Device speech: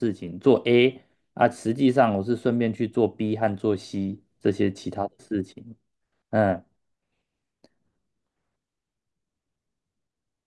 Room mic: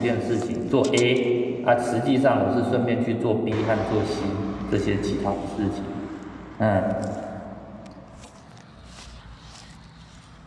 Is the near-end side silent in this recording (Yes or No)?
Yes